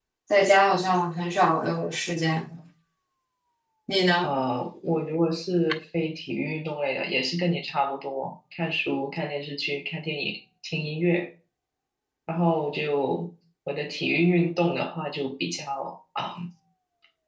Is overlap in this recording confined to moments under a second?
Yes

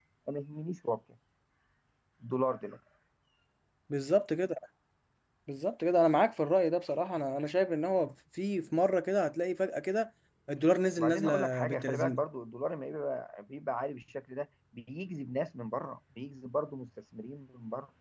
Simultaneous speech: Yes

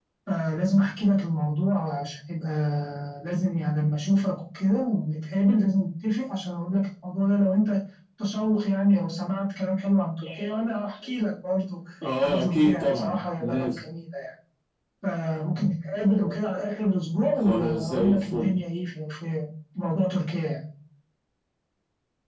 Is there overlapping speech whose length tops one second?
Yes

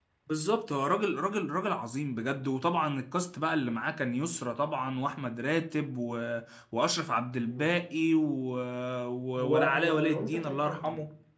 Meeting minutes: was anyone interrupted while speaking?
Yes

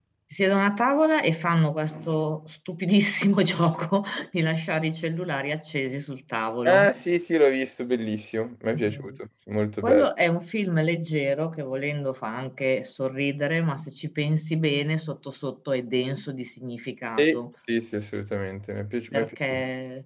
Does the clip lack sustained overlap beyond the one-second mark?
Yes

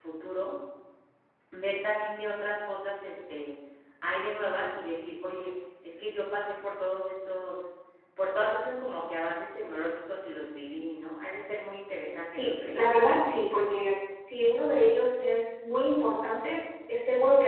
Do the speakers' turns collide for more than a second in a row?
No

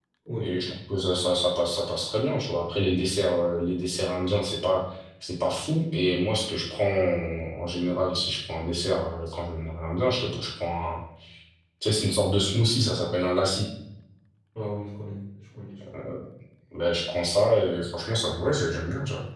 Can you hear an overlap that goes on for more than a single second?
No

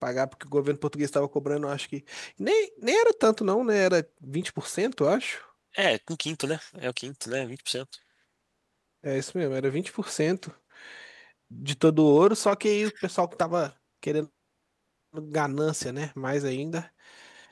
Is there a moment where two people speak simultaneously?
No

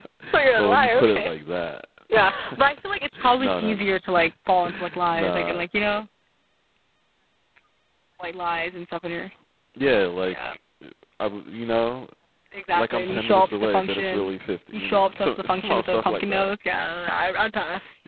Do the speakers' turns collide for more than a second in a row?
Yes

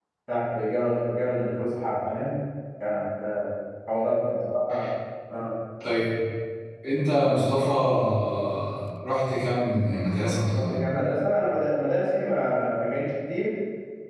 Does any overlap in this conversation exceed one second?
No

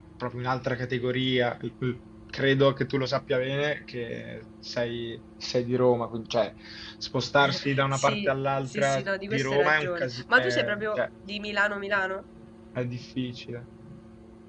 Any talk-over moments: Yes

